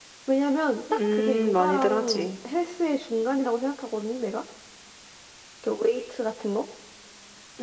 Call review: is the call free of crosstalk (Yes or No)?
No